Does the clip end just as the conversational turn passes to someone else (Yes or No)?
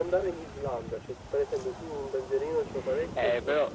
Yes